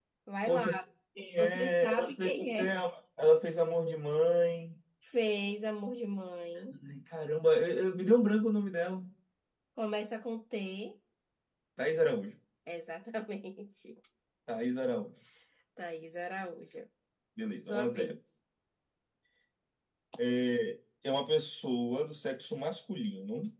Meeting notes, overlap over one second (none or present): present